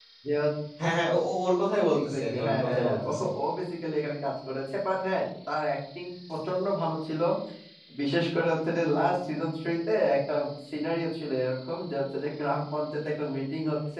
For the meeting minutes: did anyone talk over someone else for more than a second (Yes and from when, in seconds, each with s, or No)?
Yes, from 1.9 s